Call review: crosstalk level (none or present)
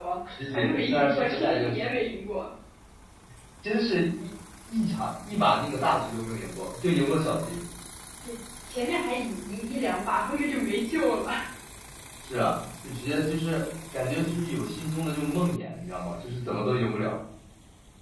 present